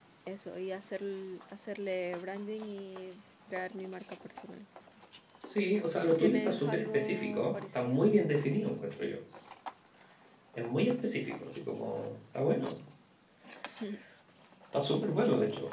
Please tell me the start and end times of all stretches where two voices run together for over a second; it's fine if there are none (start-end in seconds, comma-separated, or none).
6.1-8.1